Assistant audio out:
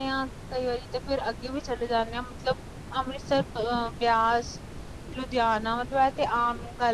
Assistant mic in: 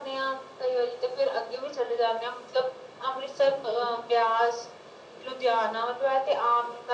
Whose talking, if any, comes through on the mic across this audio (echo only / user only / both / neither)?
echo only